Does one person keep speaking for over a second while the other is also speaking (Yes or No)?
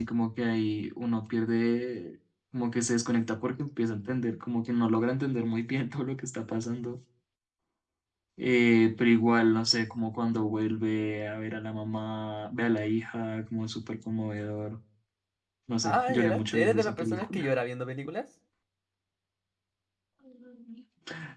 Yes